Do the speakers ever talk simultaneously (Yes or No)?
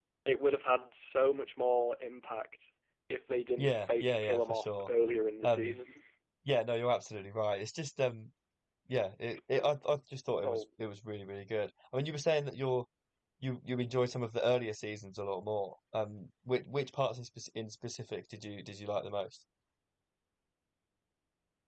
Yes